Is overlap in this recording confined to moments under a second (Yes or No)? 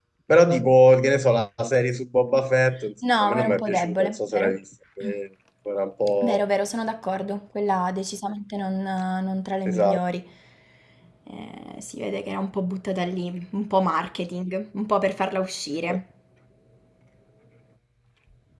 No